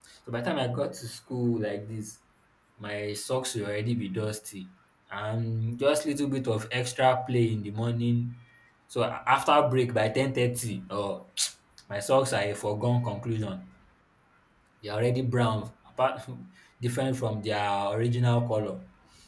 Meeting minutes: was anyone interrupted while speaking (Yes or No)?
No